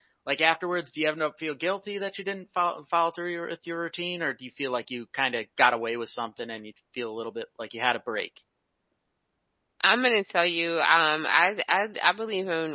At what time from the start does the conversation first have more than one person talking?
none

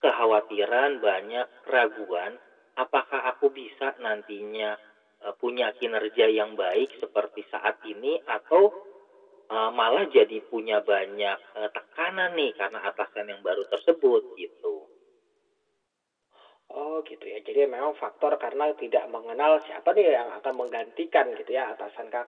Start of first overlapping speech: none

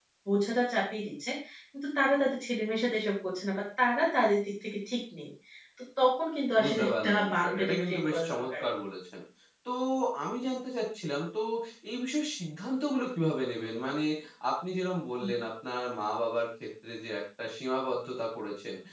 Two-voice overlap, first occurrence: 7 s

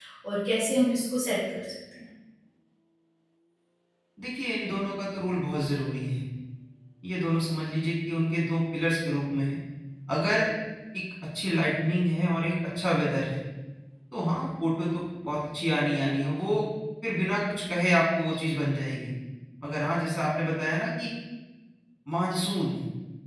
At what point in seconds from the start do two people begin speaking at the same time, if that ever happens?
none

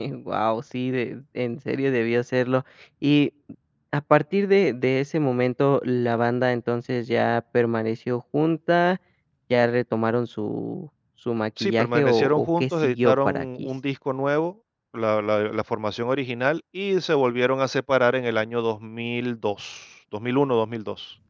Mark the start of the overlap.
12 s

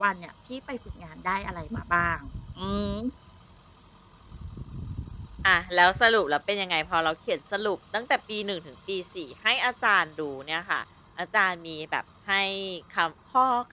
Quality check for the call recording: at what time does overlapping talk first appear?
none

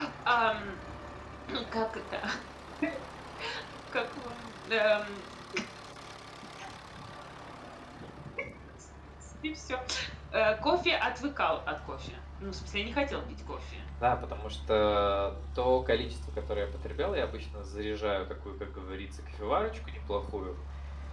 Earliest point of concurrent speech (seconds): none

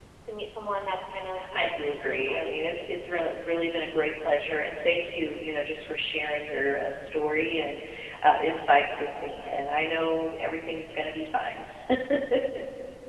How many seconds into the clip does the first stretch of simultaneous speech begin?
1 s

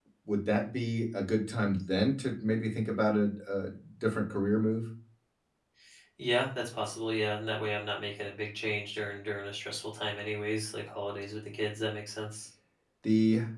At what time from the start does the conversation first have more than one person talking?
none

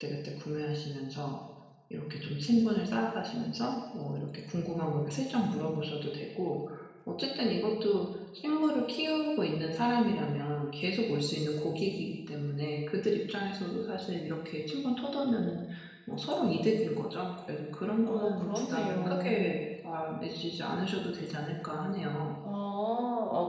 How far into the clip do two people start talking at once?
18 s

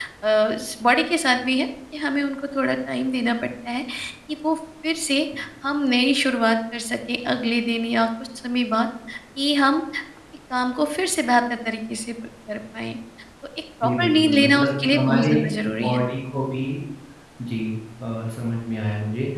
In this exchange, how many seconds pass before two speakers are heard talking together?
14 s

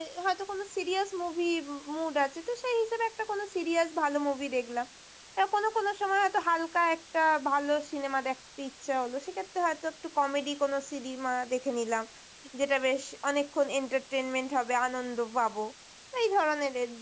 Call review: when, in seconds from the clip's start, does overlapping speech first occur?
none

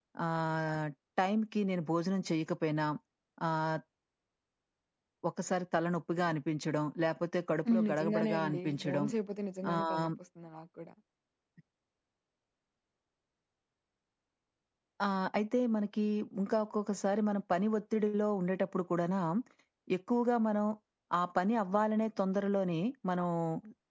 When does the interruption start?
8 s

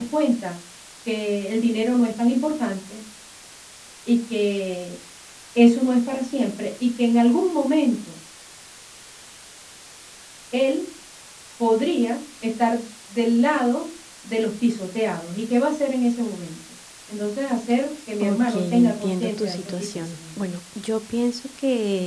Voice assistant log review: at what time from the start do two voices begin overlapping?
18 s

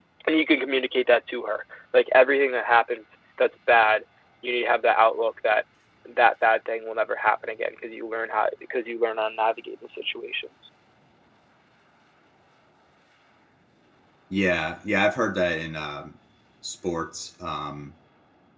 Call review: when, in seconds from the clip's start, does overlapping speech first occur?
none

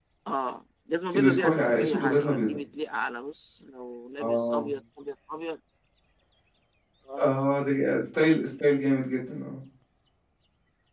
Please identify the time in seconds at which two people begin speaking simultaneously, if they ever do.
1 s

